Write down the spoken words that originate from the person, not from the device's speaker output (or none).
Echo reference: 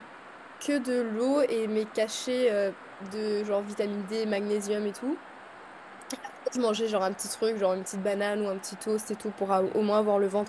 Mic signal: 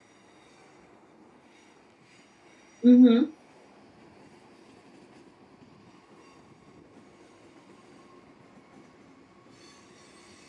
Mhm,